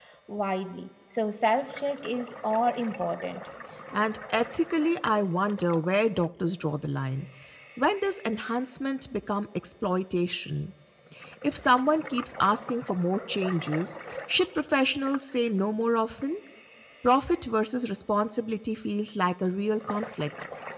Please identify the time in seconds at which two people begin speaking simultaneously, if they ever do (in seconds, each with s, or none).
none